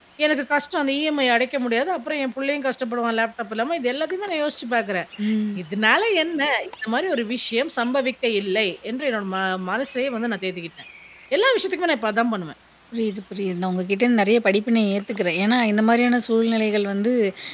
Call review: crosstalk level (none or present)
none